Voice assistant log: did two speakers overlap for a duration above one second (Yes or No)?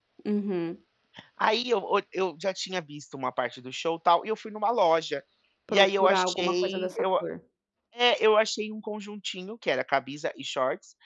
Yes